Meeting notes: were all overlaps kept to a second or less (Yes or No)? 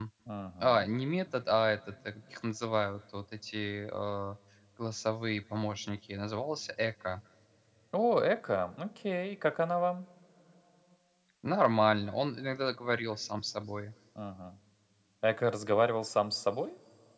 Yes